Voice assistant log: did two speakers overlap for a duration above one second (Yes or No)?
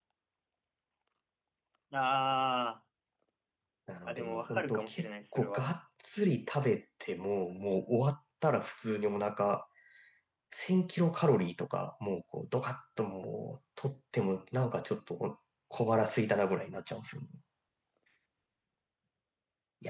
Yes